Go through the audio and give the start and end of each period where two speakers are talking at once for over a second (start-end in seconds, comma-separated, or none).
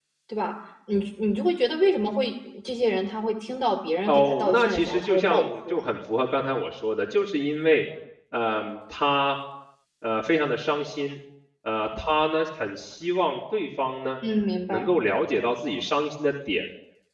4.1-5.8